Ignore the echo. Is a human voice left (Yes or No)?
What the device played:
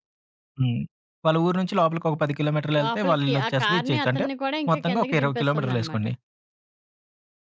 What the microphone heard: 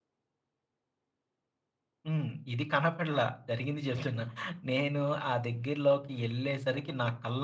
Yes